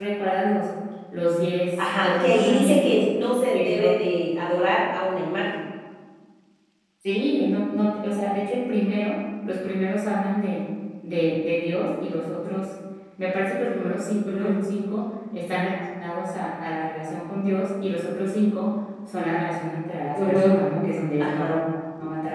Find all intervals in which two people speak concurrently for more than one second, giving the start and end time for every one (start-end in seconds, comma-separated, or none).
1.8-3.1